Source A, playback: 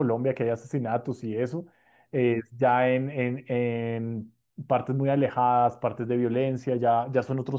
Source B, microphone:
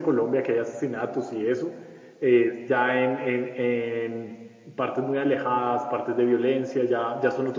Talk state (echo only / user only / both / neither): echo only